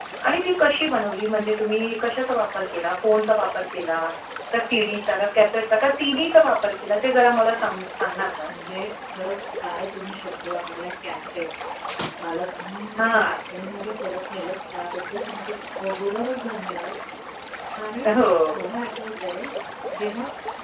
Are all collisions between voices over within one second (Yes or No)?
Yes